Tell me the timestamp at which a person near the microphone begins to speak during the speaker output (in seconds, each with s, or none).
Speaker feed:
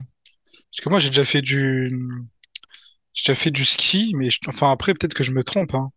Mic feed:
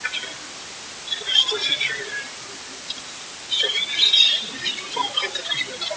none